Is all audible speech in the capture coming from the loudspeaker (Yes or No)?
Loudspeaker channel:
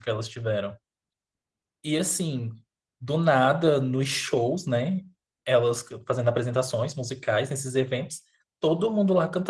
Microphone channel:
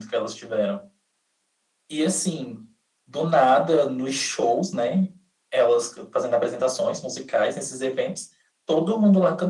Yes